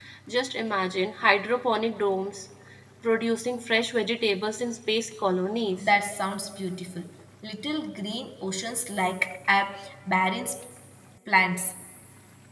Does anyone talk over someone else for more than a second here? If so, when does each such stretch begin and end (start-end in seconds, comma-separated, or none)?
none